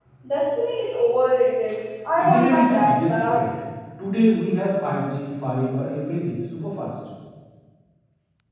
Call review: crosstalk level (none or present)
present